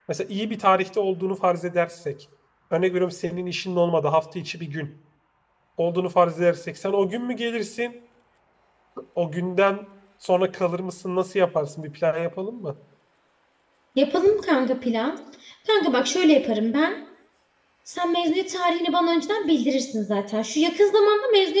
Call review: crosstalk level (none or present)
none